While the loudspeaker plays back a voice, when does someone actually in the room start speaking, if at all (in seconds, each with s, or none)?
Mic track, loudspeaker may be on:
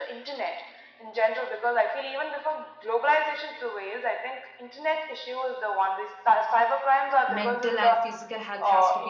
7.3 s